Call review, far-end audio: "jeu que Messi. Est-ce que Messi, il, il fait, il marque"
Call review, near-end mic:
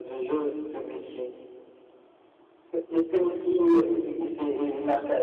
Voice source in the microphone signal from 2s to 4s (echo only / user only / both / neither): echo only